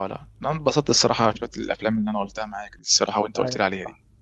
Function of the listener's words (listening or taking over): taking over